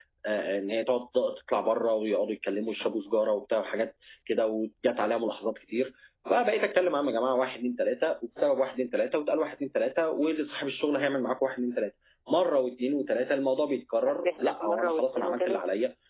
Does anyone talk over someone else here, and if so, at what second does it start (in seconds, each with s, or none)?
14.0 s